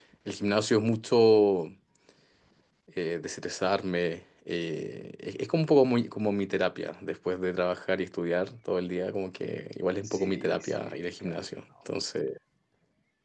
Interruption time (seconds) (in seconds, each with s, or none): 10.0 s